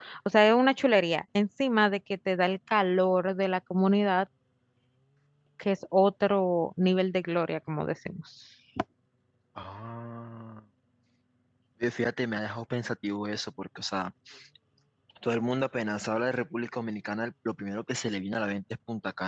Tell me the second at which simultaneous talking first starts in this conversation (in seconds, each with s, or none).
none